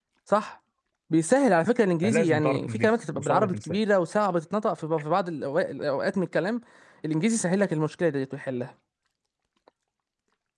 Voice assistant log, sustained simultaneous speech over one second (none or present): present